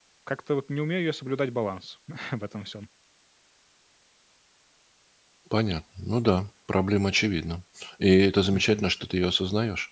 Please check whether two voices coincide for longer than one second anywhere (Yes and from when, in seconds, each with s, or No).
No